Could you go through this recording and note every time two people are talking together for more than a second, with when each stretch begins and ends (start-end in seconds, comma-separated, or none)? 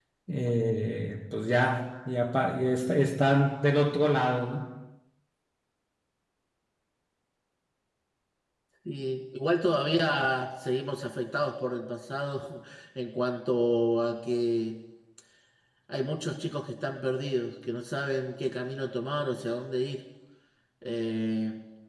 none